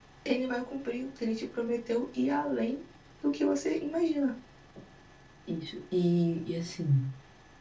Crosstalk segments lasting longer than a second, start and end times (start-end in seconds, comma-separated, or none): none